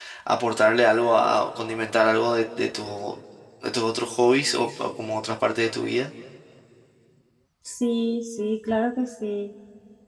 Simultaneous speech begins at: none

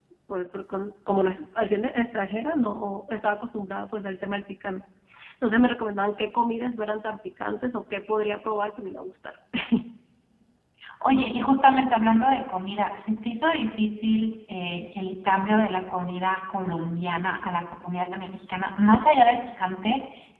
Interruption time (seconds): none

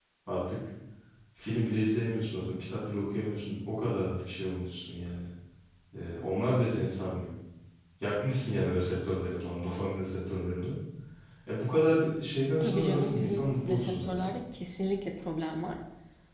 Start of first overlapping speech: 12.5 s

